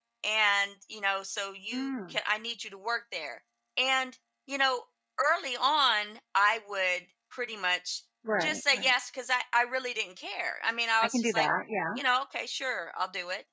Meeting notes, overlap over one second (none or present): none